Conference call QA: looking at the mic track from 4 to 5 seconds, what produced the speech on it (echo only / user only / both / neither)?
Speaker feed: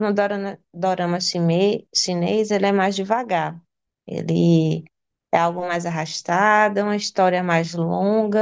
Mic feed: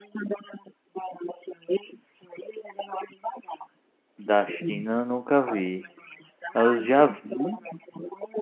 both